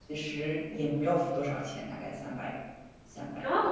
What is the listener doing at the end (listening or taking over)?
taking over